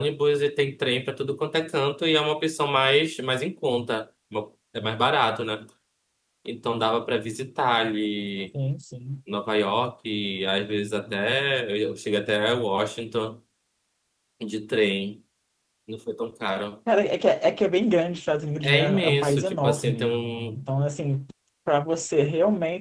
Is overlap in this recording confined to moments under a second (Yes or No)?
No